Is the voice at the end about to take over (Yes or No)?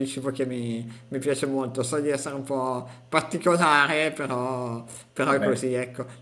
No